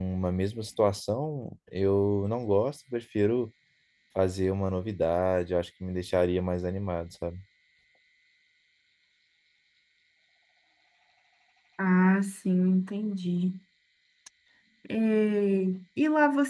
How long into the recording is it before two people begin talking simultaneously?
none

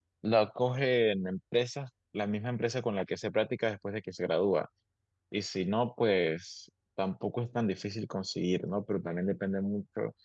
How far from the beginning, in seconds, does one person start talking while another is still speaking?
none

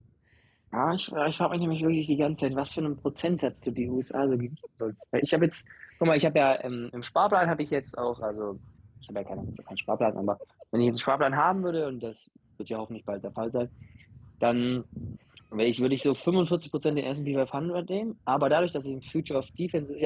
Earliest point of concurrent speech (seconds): none

